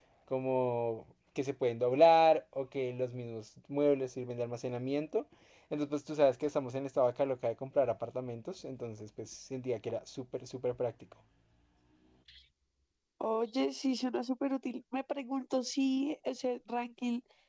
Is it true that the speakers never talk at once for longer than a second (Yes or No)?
Yes